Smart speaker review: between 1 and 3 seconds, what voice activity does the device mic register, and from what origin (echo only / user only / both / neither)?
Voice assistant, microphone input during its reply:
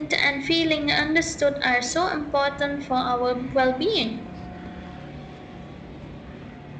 echo only